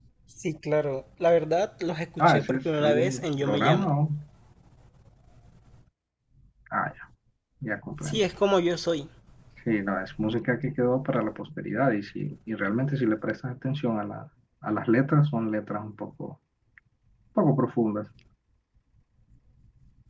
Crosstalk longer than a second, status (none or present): present